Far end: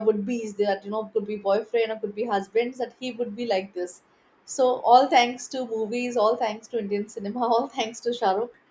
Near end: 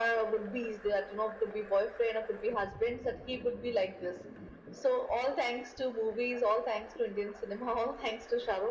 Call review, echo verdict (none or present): present